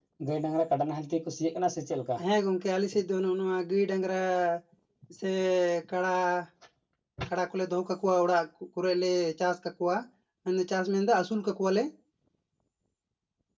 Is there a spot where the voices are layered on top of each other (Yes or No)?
No